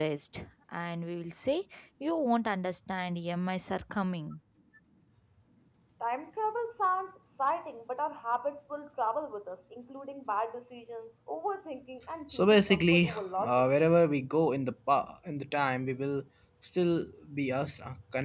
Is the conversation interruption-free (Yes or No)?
No